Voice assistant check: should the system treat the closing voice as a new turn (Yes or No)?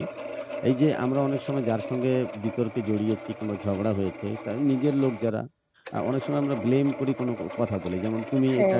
No